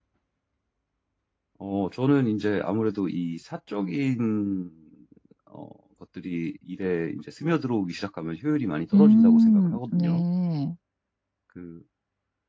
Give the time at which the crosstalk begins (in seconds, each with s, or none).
8.9 s